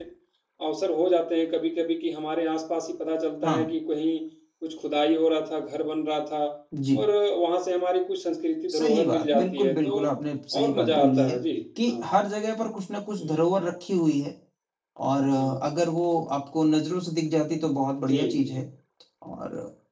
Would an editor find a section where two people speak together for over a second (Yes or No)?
Yes